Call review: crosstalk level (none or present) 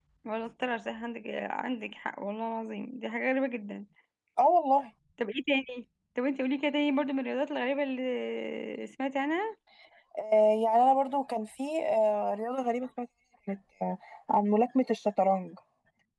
none